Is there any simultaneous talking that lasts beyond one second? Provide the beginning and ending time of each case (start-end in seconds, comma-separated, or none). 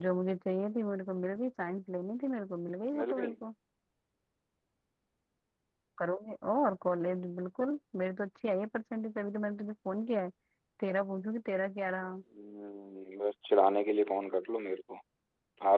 none